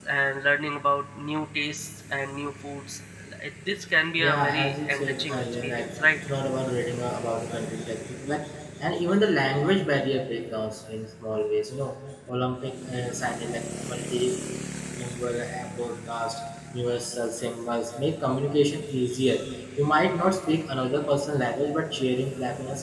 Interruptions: present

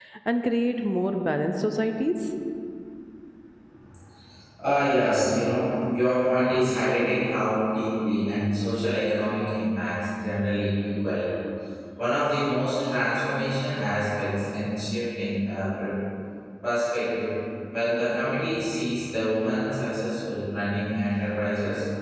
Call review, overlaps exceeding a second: none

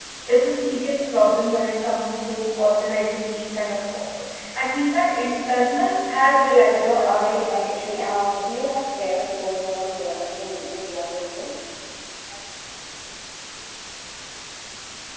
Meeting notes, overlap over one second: present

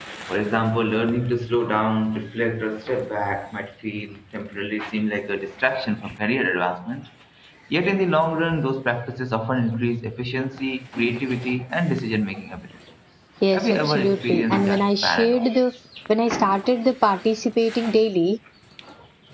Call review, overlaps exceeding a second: present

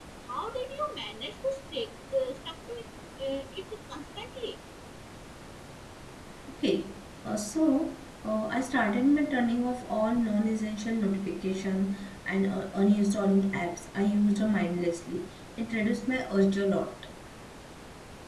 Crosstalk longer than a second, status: none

